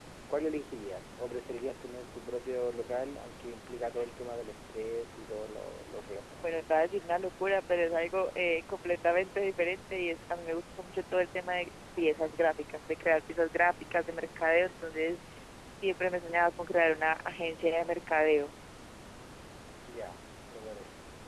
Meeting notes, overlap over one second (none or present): none